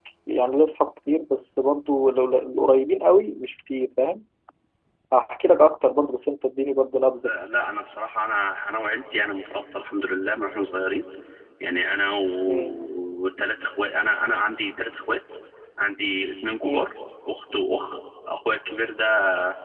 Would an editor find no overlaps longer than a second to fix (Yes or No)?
Yes